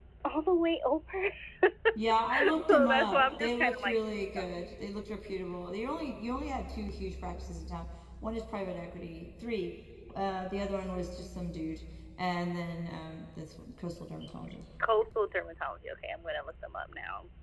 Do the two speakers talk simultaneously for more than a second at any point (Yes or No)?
Yes